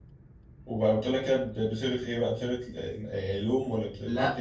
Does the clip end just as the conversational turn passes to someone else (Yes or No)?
Yes